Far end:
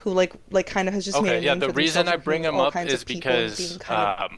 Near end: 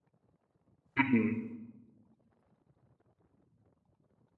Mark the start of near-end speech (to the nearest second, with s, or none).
1 s